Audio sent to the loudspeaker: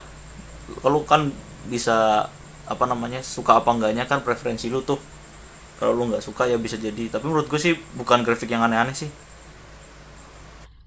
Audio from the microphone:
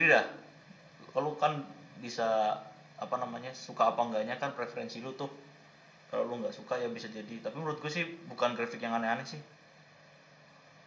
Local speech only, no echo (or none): none